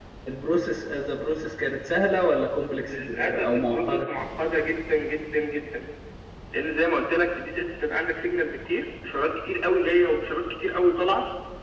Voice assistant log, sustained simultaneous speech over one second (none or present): present